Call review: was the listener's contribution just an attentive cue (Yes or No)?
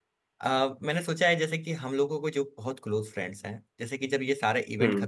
Yes